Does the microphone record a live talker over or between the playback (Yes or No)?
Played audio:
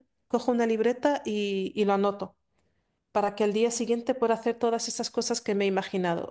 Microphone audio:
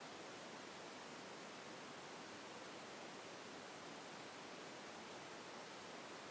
No